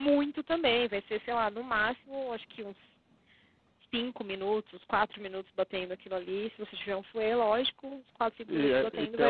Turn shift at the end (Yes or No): Yes